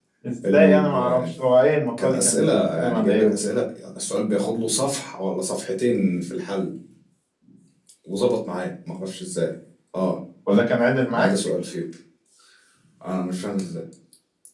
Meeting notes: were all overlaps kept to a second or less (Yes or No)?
No